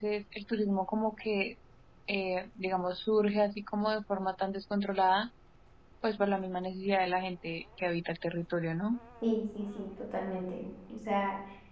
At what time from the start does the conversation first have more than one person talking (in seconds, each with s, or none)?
none